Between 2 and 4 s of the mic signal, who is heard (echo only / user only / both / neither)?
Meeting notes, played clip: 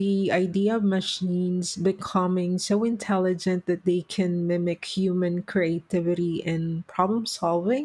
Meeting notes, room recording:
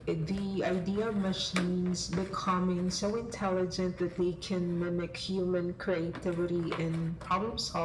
echo only